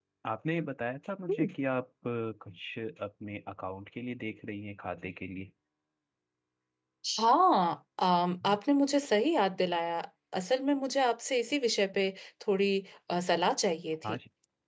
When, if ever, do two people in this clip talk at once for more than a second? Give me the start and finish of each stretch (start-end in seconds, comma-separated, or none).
none